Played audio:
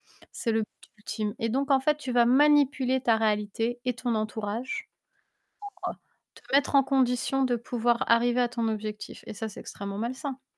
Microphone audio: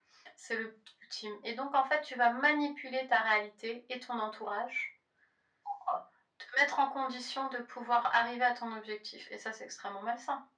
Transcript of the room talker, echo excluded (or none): none